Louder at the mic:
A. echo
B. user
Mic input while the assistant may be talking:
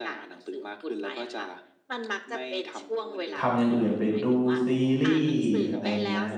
B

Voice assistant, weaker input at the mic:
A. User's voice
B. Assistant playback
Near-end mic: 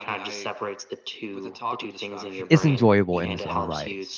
B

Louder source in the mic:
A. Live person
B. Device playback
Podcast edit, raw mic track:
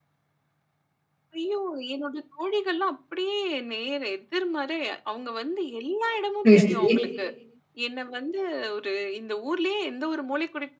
A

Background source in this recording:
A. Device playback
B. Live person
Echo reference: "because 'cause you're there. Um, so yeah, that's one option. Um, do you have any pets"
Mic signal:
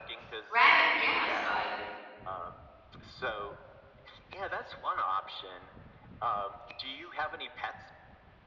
A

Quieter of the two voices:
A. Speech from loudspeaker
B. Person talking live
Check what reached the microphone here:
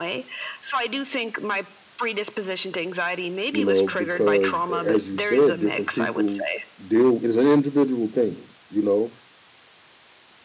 A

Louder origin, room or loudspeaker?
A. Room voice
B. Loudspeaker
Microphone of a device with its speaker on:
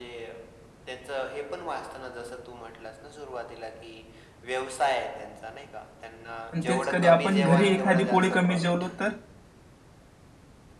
A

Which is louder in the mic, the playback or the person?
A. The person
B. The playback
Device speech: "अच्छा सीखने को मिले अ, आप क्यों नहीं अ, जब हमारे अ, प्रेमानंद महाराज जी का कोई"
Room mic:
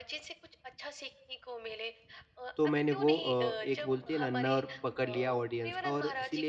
A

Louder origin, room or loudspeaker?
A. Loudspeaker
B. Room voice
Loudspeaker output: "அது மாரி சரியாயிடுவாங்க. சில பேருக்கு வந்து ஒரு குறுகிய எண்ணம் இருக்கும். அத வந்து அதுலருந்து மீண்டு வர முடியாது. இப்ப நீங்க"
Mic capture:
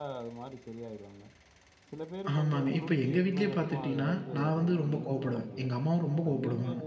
B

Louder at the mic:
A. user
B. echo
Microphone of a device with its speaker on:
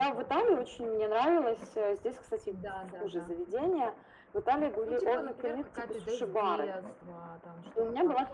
B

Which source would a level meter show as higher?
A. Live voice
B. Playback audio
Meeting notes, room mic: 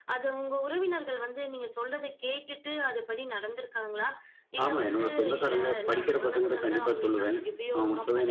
A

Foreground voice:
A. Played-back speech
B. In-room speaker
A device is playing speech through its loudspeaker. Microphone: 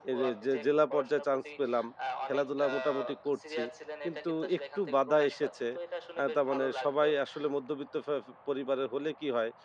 B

